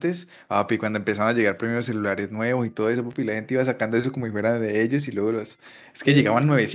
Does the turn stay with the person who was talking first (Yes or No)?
Yes